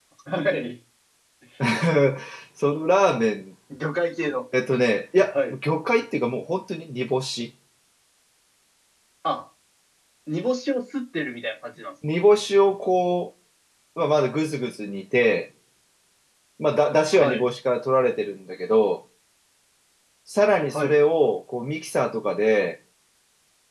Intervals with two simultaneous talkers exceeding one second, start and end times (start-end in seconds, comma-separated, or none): none